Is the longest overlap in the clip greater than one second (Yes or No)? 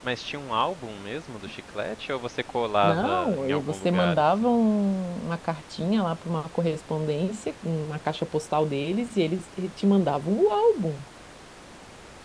Yes